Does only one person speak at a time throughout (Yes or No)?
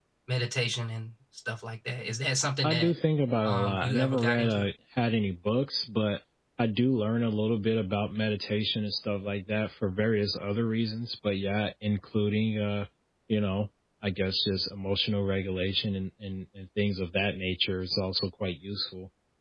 No